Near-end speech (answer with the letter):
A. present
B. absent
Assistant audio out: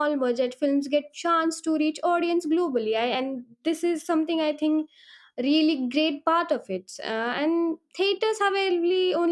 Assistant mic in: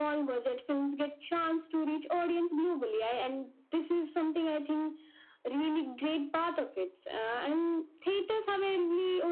B